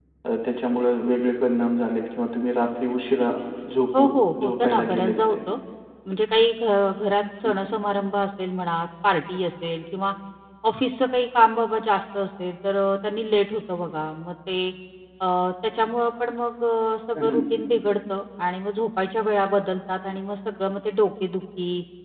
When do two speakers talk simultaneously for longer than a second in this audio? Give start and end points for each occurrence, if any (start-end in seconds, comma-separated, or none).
4.0-5.4